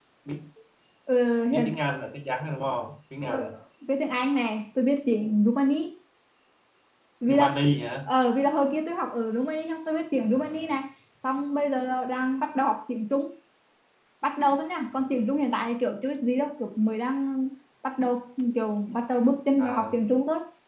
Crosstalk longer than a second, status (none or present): none